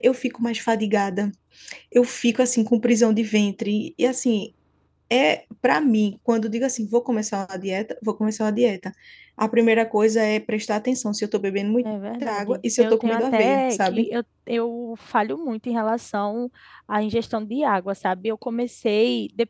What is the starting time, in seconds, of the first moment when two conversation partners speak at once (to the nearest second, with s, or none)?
12 s